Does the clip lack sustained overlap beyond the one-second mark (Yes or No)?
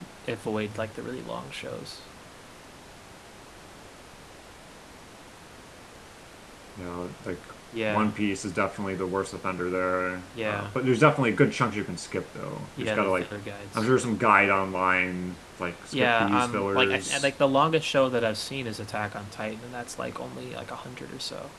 No